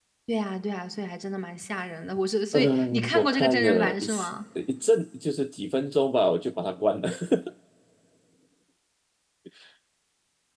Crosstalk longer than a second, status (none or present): present